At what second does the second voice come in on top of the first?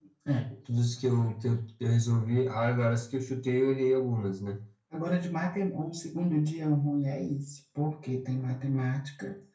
none

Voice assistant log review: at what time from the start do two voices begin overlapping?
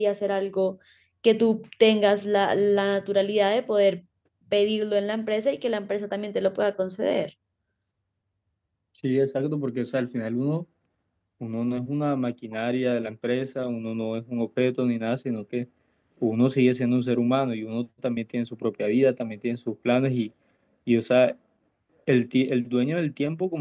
none

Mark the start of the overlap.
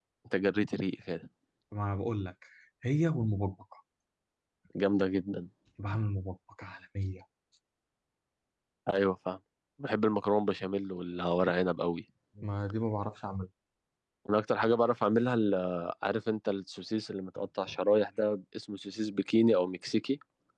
none

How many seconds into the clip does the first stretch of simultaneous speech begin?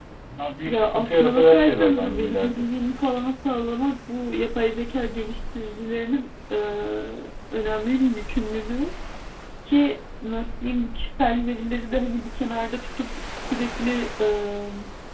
1 s

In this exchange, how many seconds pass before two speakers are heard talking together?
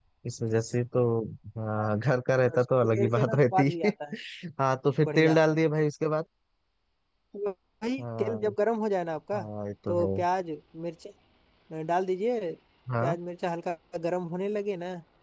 2 s

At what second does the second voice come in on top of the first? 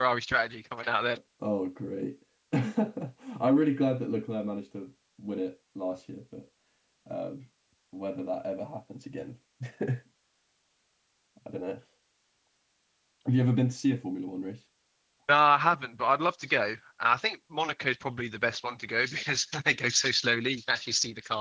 none

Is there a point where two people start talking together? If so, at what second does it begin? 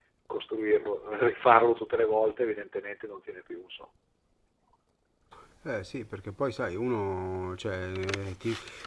none

